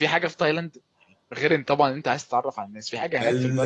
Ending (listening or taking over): taking over